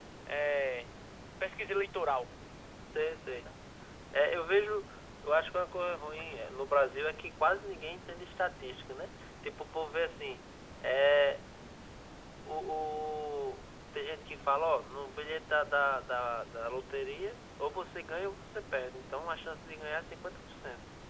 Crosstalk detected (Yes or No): No